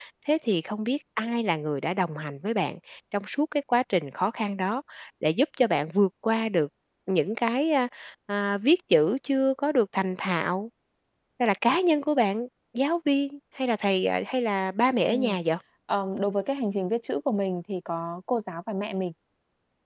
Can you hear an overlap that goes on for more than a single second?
No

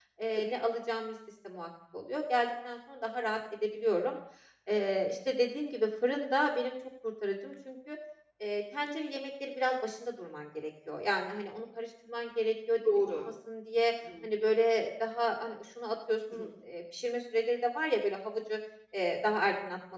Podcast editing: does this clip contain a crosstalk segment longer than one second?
No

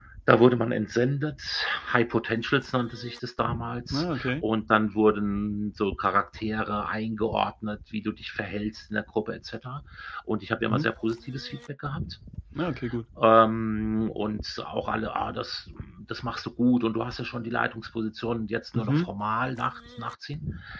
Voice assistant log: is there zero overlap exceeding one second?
Yes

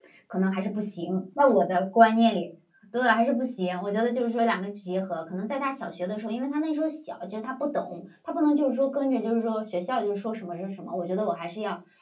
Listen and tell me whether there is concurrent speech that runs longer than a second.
No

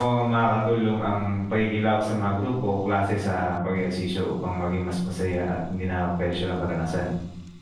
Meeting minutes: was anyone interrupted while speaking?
No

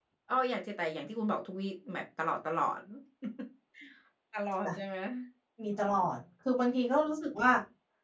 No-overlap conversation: Yes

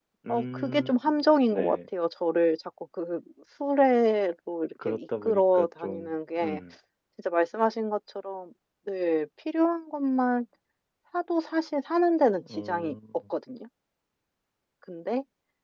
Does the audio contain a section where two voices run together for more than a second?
Yes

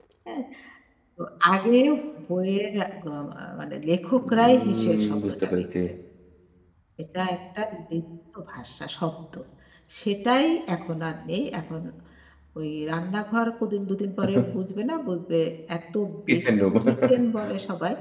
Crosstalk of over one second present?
Yes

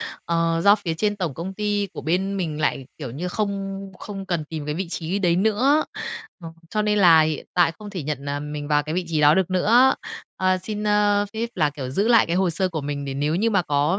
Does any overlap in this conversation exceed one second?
No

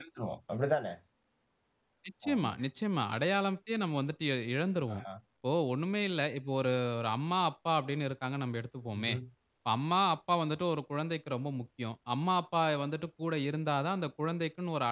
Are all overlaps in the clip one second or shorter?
Yes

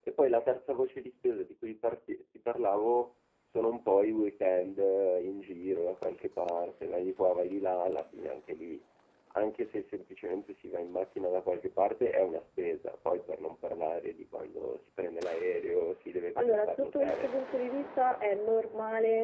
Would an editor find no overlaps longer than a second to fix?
No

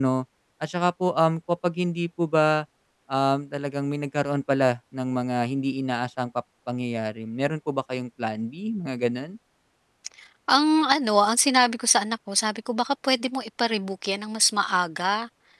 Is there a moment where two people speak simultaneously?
No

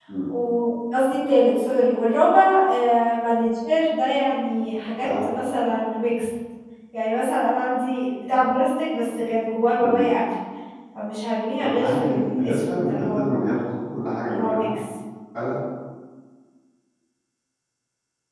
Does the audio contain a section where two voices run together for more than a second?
Yes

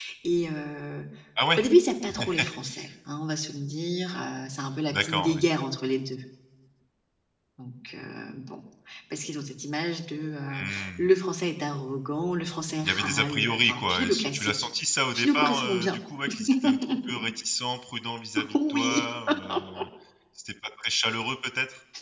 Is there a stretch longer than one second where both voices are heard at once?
Yes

